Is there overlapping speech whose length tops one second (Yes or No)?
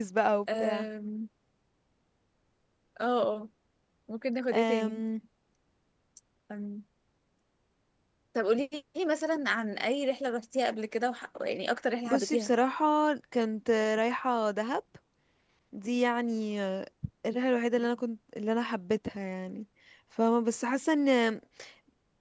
No